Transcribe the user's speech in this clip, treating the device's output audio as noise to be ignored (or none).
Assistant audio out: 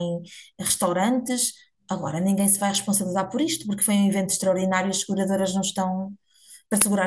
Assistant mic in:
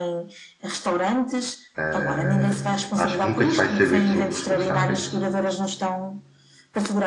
Uh, acho que nunca se vai saber se houve responsáveis